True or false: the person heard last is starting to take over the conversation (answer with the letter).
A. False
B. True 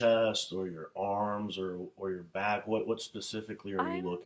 B